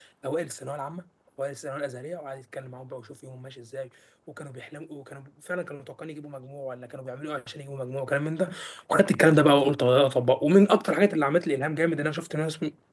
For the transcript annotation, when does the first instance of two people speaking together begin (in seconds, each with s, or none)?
none